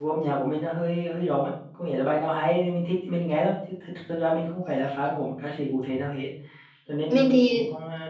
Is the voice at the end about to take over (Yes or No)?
No